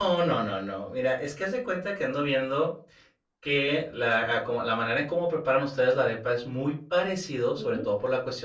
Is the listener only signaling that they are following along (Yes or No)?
Yes